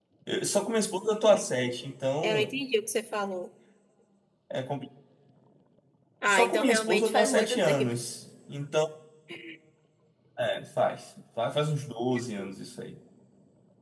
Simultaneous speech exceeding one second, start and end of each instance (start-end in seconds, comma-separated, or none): 6.3-7.9